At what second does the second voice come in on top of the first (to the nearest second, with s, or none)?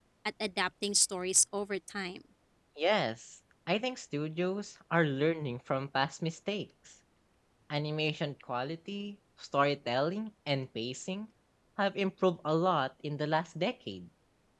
none